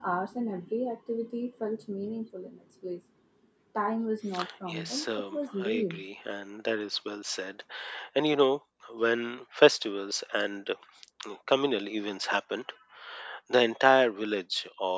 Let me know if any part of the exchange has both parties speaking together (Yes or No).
Yes